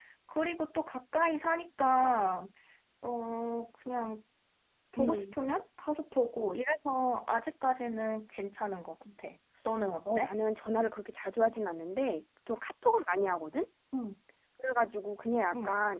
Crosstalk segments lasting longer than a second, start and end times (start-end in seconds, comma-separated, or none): none